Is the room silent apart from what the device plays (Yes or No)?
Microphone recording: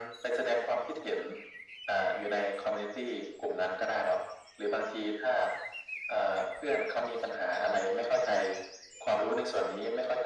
Yes